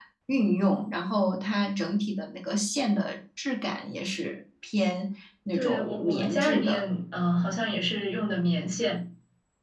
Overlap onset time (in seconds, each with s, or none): 5.5 s